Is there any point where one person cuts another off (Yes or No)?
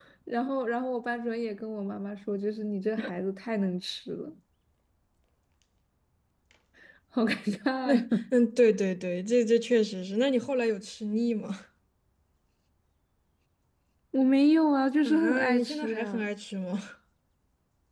Yes